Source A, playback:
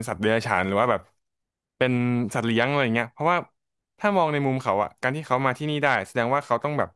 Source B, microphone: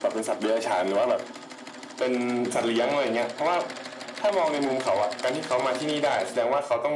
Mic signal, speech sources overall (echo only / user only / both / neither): echo only